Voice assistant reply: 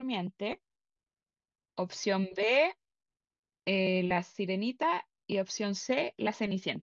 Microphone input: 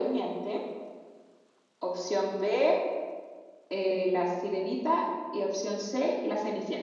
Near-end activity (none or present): none